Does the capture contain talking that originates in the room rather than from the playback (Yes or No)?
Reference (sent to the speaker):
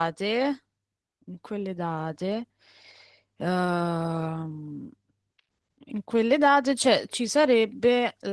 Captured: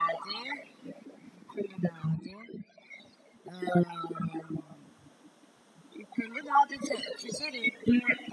No